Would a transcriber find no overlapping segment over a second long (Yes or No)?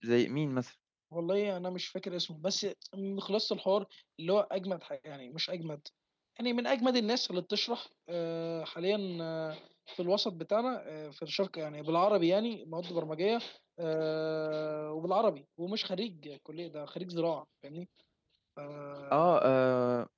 Yes